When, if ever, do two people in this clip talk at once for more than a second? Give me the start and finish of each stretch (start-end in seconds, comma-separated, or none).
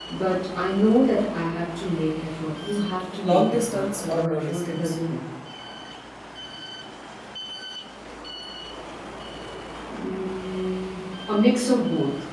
3.2-5.0